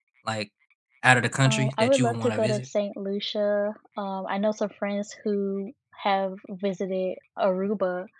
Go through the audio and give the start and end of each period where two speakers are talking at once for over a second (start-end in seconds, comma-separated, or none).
1.4-2.7